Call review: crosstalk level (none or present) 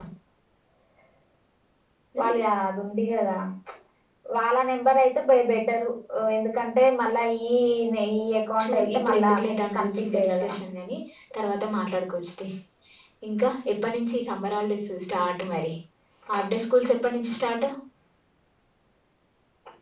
present